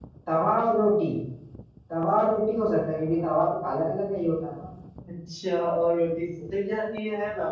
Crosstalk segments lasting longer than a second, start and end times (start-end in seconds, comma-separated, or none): none